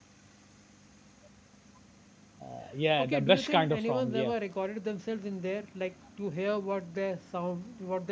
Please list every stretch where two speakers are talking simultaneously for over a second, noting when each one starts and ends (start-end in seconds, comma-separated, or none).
3.0-4.3